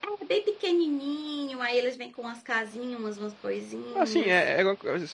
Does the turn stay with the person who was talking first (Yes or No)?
No